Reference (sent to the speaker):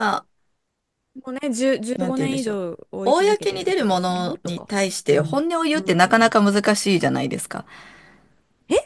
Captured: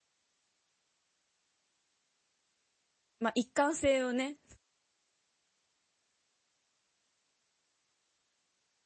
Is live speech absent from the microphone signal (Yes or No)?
No